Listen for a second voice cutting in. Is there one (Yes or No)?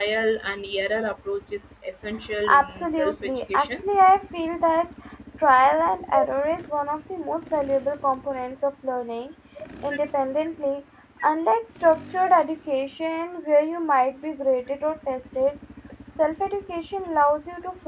Yes